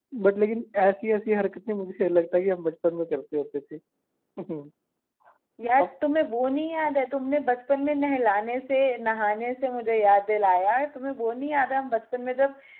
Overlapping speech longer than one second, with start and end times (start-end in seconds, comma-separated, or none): none